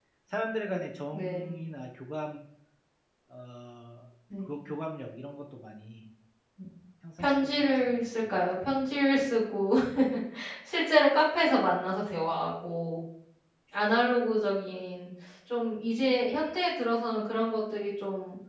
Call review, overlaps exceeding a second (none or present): present